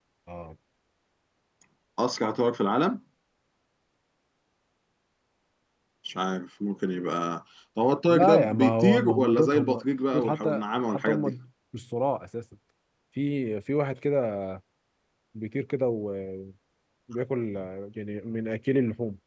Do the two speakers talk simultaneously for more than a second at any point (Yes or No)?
Yes